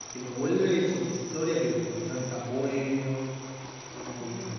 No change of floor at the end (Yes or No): No